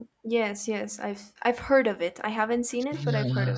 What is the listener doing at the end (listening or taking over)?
taking over